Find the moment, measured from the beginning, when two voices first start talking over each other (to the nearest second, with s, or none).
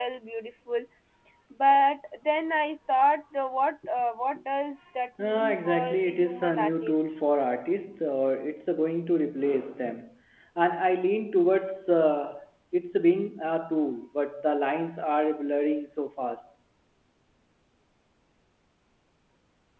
5 s